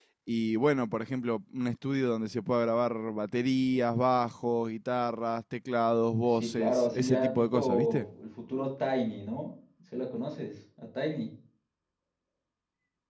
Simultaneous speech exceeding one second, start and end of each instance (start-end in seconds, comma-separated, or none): 6.3-8.1